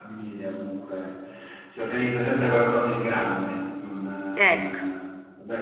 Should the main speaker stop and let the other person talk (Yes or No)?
No